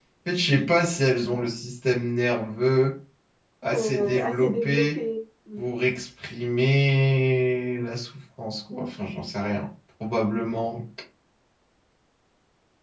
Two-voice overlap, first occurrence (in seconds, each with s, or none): 3.7 s